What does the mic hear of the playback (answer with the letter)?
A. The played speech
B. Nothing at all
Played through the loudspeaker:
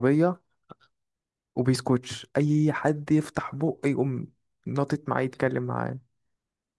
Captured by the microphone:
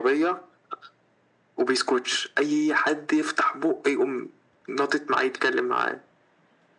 A